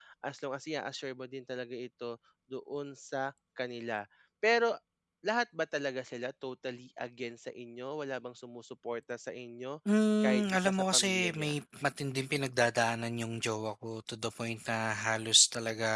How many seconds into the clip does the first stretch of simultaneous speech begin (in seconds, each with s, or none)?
10.2 s